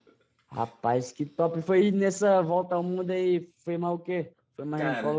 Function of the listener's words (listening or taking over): taking over